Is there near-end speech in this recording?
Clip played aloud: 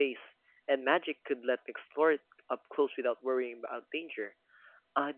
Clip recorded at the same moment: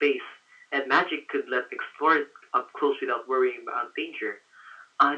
No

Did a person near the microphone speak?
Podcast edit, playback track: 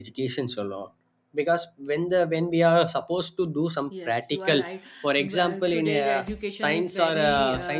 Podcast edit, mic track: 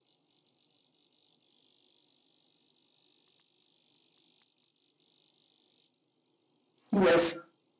Yes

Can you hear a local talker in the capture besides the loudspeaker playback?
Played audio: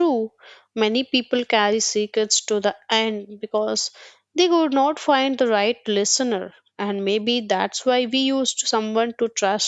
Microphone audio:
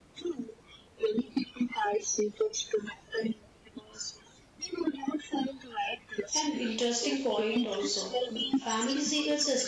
Yes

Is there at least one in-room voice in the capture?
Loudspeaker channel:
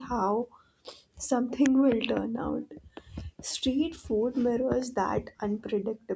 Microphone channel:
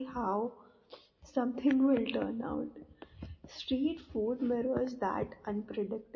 No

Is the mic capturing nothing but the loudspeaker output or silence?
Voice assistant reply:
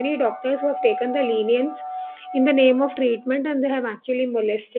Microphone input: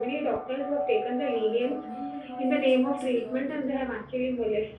No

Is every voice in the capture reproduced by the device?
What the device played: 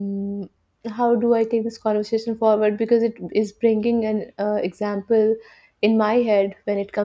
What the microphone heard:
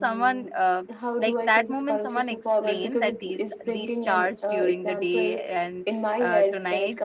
No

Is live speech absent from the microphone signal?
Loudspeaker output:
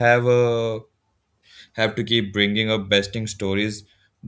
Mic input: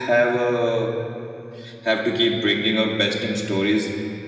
Yes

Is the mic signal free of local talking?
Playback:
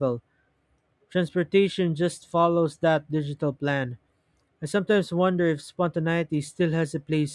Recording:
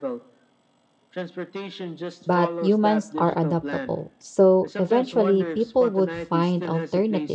No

